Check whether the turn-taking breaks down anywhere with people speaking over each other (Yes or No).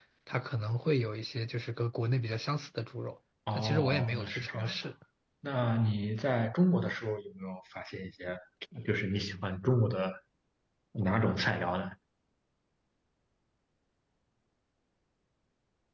Yes